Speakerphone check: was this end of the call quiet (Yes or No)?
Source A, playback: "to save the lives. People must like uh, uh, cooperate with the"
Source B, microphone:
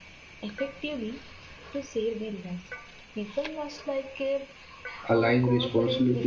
No